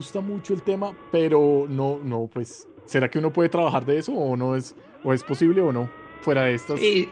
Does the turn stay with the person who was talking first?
No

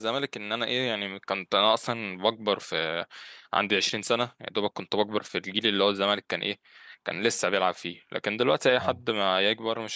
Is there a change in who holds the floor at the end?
No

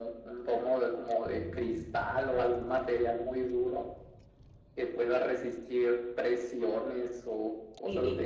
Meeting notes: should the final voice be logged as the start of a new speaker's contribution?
Yes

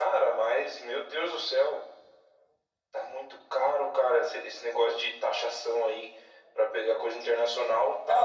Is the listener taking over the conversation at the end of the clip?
Yes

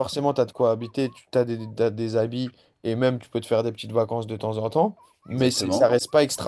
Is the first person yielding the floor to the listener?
No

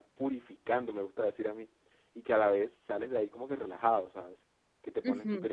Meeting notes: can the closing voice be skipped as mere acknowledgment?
Yes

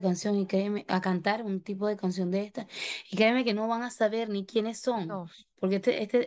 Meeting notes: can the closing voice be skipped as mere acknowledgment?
Yes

